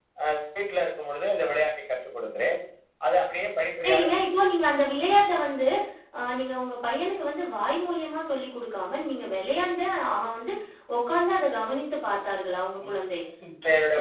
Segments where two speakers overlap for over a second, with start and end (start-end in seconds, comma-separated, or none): none